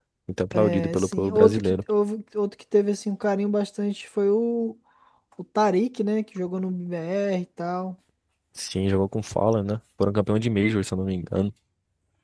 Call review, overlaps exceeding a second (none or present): present